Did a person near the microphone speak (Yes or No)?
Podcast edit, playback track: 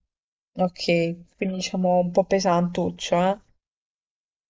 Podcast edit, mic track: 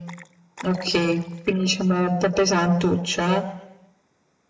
No